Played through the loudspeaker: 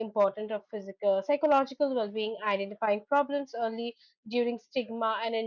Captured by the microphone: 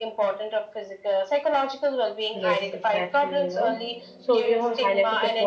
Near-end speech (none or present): present